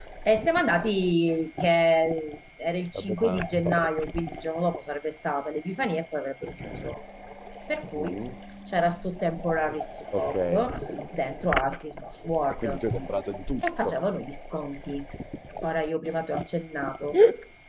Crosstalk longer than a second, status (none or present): none